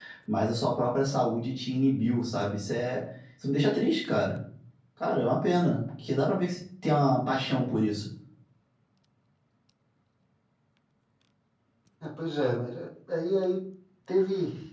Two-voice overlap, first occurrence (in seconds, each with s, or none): none